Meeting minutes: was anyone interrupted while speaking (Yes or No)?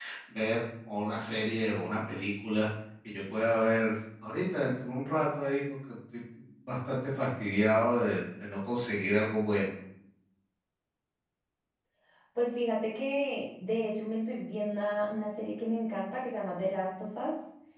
No